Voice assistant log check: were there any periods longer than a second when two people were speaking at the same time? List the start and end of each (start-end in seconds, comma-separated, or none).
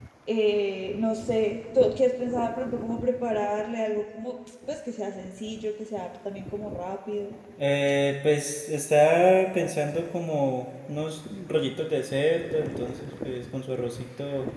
none